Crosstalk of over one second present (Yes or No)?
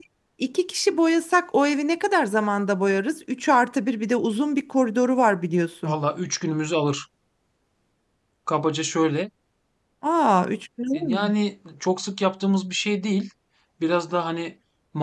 No